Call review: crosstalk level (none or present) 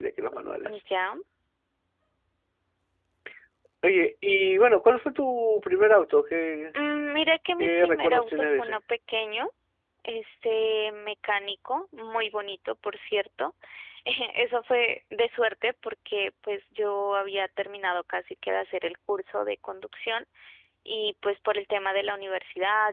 present